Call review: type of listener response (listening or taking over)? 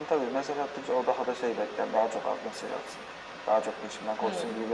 listening